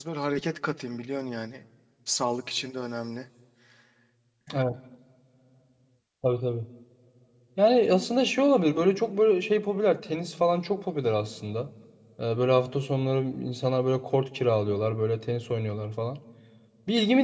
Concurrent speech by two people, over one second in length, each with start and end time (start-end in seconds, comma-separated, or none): none